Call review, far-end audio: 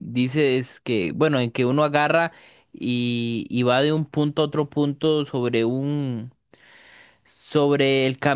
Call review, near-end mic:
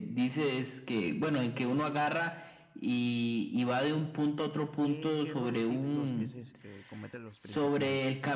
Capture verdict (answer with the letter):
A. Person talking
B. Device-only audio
A